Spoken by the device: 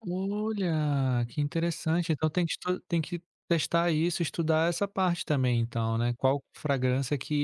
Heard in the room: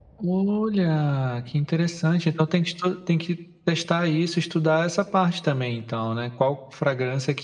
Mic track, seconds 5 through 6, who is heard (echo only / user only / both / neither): echo only